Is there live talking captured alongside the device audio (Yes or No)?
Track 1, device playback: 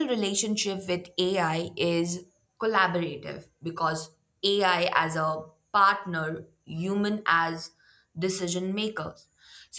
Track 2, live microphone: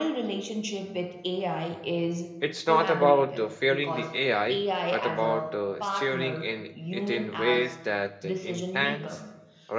Yes